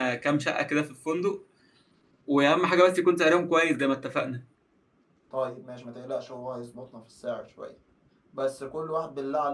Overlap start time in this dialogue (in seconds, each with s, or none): none